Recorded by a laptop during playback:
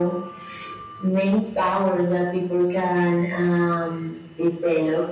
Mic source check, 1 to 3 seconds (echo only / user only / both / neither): echo only